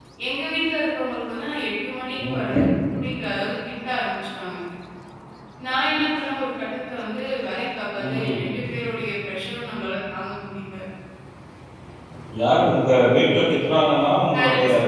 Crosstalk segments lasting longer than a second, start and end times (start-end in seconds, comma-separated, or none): none